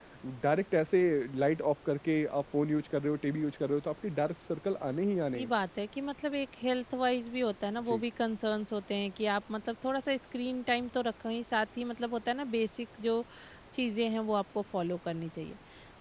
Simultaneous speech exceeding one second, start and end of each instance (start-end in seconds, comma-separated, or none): none